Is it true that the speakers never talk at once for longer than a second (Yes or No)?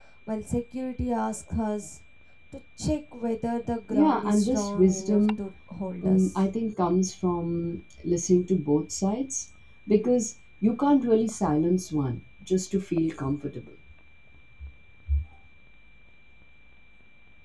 No